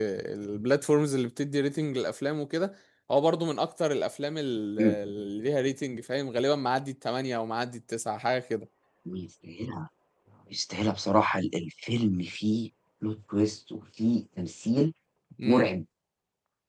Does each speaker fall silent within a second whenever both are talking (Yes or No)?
Yes